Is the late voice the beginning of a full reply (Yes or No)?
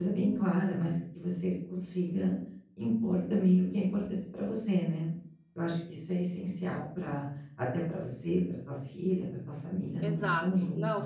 Yes